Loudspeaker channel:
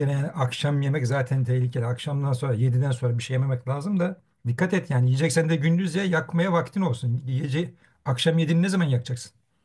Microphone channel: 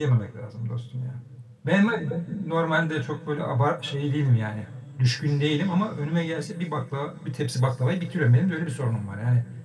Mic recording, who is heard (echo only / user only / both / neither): user only